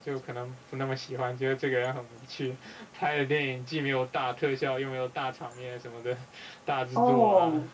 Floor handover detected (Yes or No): Yes